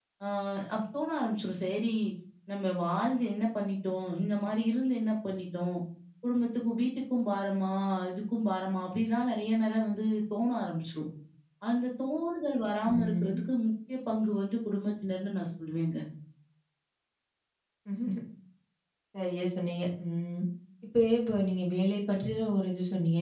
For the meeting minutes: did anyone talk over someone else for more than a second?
No

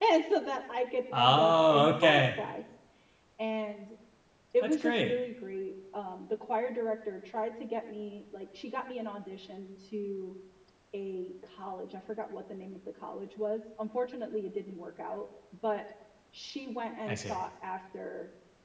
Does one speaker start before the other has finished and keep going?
Yes, from 1.1 s

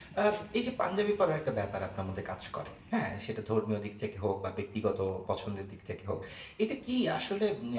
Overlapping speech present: No

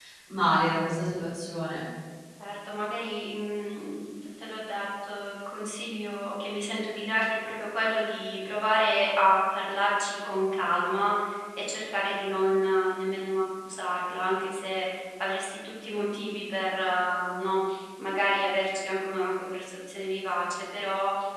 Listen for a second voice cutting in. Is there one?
No

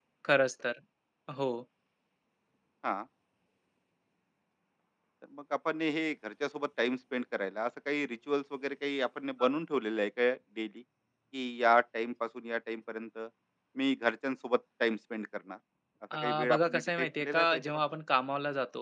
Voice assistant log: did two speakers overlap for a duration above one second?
Yes, from 16.2 s

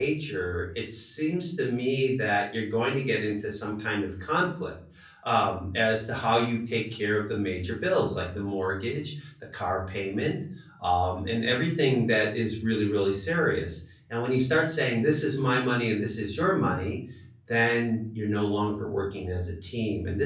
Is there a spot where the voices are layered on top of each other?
No

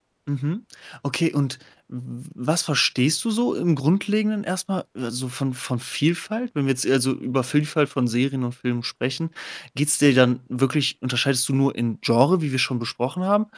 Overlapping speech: No

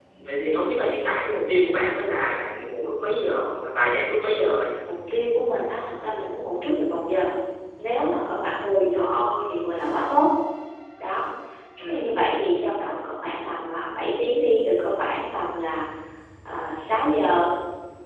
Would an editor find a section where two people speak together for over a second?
No

